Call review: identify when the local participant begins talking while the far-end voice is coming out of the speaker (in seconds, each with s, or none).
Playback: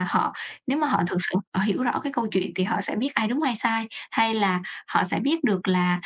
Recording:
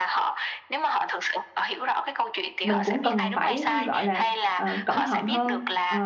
2.6 s